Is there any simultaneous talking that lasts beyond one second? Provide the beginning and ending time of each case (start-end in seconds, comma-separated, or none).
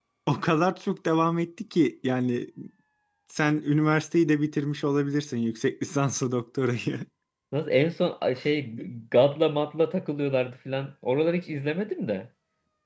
none